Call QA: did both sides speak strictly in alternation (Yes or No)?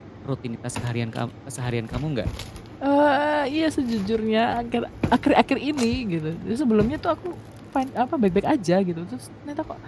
Yes